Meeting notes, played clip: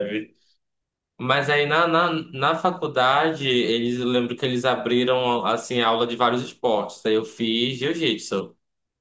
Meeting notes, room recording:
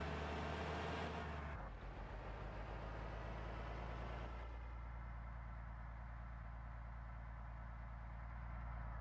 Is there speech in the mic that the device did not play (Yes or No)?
No